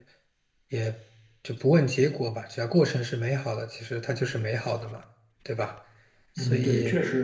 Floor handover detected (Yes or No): Yes